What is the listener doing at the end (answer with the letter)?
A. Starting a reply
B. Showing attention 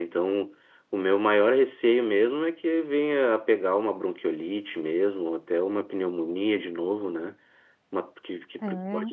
B